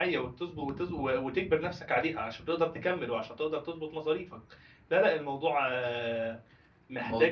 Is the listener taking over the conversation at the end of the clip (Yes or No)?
No